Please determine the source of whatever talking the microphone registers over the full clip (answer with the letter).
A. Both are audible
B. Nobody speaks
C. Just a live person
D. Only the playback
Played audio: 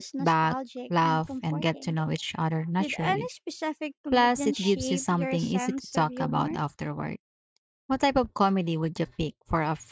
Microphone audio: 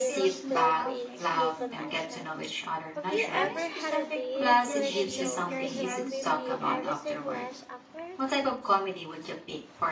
A